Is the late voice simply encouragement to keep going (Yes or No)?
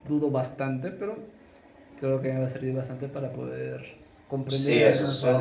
No